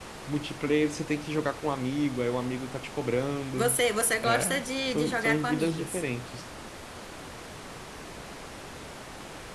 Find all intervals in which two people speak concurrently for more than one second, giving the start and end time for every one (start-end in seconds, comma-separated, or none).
4.2-6.0